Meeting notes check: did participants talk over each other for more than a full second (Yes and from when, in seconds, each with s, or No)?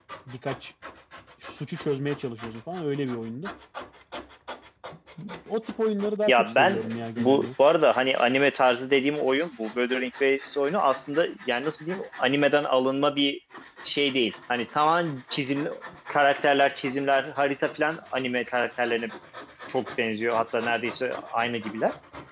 Yes, from 6.3 s